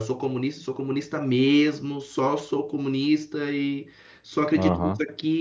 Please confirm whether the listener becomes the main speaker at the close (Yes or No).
No